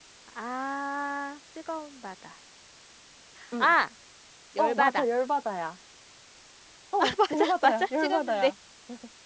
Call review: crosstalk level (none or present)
present